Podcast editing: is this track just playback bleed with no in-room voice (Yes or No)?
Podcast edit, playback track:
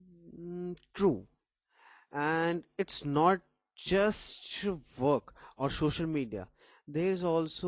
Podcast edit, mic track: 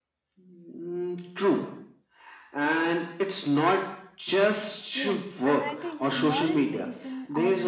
No